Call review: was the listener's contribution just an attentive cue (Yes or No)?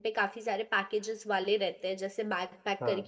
Yes